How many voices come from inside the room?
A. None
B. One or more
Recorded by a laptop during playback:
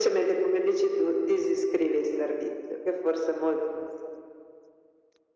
A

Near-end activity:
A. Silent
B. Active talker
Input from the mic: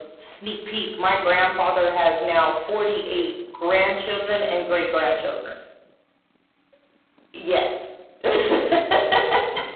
A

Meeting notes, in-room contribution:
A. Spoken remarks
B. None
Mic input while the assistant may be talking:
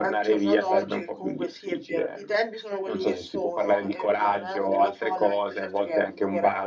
B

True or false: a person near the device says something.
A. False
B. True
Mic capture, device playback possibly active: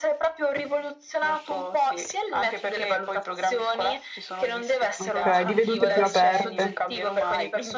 B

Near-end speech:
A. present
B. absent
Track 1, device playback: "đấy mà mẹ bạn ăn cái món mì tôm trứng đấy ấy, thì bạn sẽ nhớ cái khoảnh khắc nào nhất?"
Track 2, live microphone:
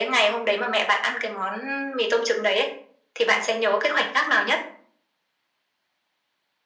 B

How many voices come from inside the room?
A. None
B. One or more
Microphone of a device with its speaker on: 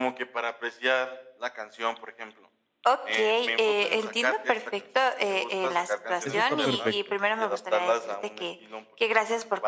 B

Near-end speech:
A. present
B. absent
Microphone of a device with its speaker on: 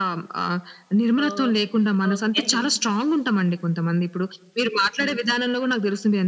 A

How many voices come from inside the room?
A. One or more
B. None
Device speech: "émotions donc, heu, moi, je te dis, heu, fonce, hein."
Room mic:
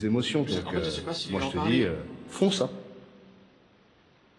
A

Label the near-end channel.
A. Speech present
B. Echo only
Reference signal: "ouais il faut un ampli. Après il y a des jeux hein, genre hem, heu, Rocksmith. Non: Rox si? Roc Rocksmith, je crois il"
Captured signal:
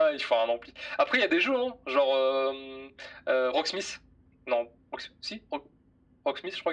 B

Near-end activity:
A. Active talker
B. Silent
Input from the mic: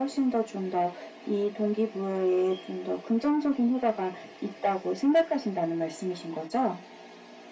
B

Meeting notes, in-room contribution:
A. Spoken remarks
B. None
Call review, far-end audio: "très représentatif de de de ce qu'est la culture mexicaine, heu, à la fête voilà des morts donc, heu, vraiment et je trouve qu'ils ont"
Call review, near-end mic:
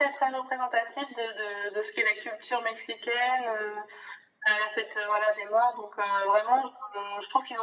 B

